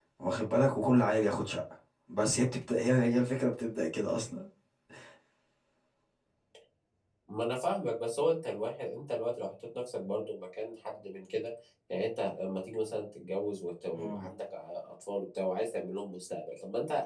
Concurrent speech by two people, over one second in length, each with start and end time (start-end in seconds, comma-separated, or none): none